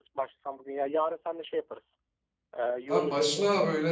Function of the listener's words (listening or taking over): taking over